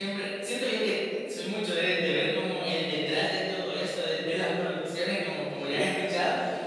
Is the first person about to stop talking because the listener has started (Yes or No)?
No